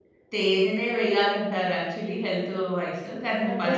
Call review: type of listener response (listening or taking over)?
listening